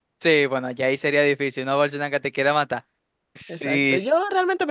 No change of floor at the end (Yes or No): No